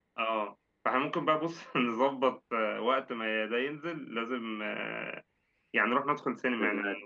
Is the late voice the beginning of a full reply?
No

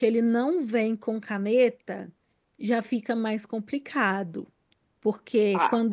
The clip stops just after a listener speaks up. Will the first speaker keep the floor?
Yes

